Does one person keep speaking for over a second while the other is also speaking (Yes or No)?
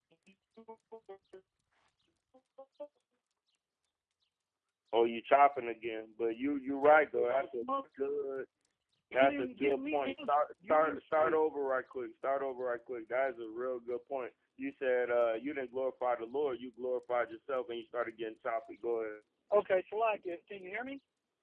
Yes